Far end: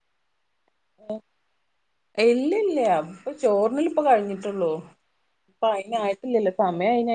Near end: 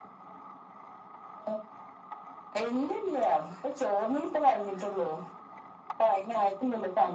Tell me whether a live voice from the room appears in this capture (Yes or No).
No